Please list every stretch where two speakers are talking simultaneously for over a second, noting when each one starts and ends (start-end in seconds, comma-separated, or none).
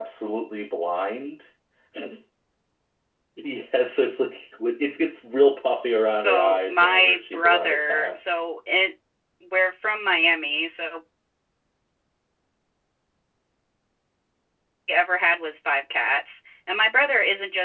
6.1-8.2